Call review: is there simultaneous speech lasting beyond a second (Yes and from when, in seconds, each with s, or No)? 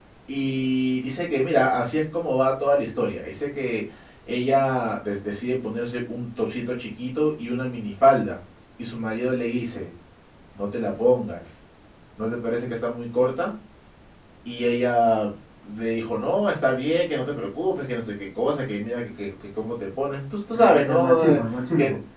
Yes, from 20.5 s